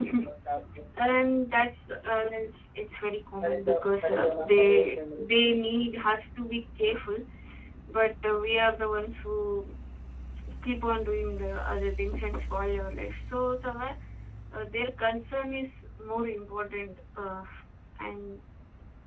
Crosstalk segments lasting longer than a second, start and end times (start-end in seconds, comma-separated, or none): 3.4-5.0